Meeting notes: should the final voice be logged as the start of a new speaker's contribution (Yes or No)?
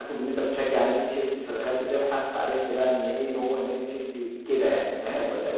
Yes